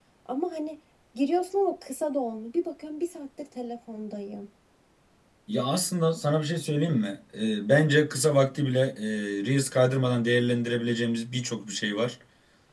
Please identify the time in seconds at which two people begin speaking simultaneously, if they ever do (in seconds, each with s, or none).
none